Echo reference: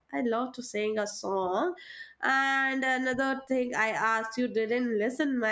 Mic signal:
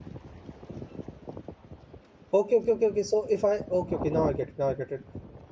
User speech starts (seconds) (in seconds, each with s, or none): 2.3 s